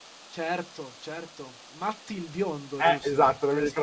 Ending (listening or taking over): taking over